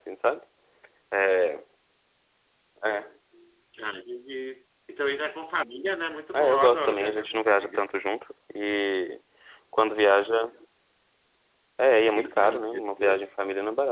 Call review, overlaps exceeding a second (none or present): present